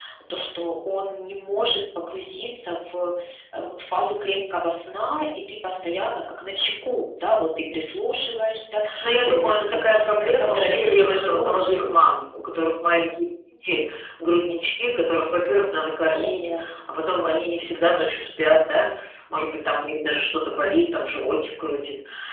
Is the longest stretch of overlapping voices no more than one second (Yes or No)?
No